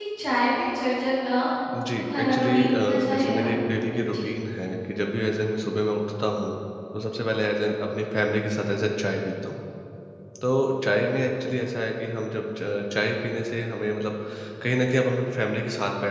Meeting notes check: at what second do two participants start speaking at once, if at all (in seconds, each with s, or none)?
2.0 s